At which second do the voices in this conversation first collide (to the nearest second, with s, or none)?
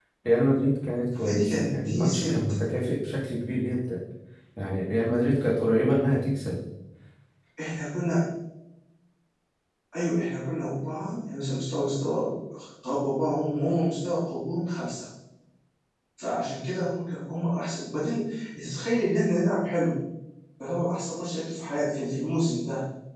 1 s